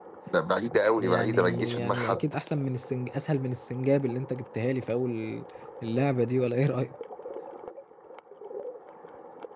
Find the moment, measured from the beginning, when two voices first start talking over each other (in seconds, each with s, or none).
1.0 s